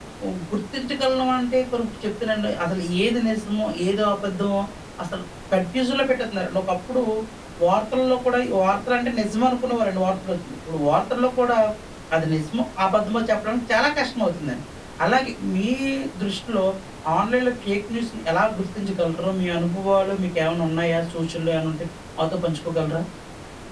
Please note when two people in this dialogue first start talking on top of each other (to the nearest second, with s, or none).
none